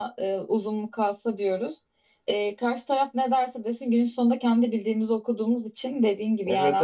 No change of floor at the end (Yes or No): No